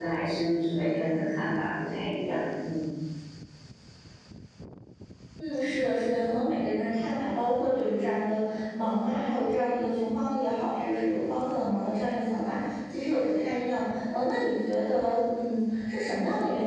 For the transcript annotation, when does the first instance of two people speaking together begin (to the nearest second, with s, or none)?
none